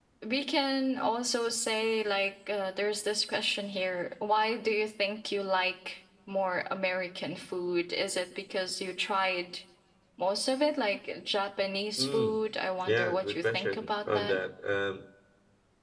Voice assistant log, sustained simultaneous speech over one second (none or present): present